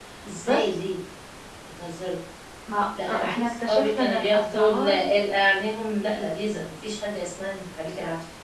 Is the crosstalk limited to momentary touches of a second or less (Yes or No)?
No